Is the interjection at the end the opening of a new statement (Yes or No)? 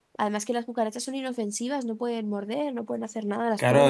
Yes